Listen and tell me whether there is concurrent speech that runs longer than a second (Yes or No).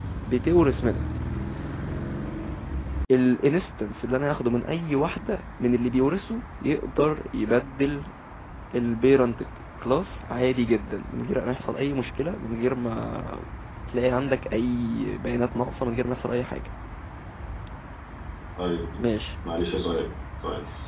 No